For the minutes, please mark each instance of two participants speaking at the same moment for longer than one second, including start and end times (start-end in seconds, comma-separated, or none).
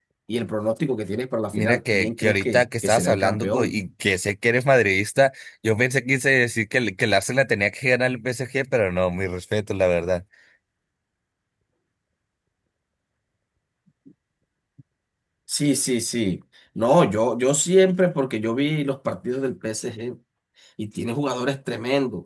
1.5-3.7